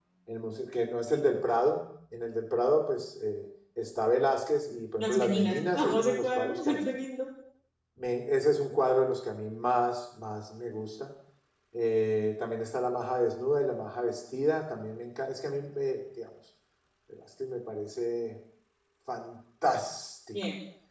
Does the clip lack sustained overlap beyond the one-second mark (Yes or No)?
No